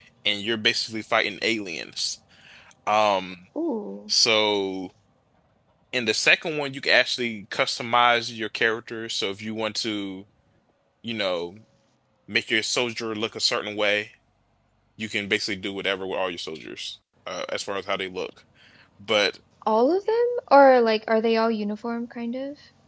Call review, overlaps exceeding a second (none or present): none